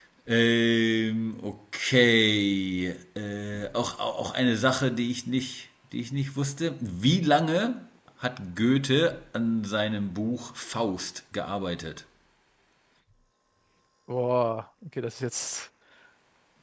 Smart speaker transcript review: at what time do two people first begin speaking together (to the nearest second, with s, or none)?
none